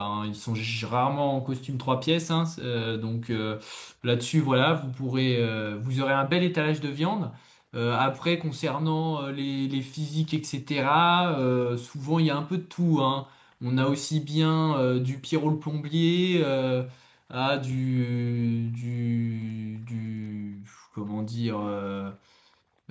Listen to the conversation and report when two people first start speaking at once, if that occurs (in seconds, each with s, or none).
none